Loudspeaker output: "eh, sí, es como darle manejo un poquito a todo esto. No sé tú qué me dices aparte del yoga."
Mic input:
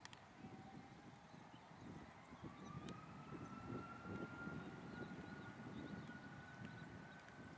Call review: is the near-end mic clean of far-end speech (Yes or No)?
Yes